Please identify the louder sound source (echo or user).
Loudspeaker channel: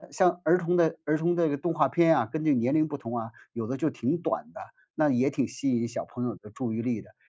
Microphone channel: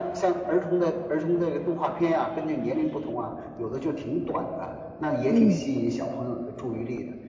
user